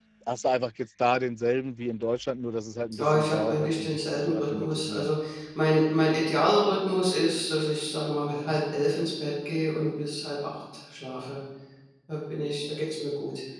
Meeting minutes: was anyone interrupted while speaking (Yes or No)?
Yes